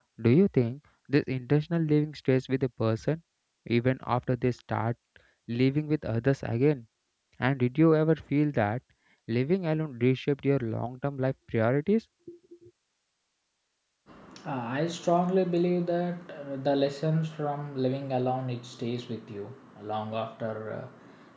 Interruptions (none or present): none